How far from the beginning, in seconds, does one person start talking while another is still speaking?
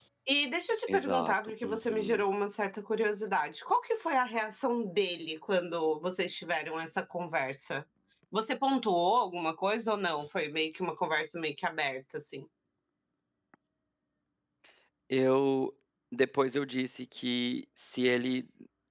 1 s

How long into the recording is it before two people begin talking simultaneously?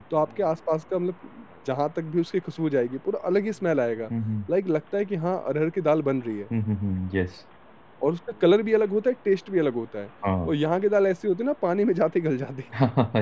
none

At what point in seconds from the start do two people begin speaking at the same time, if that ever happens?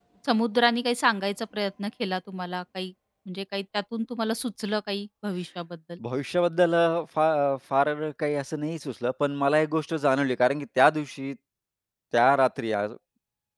none

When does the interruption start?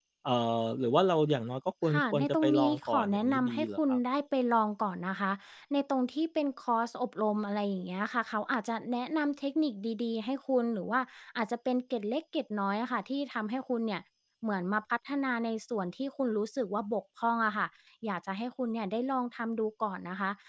2 s

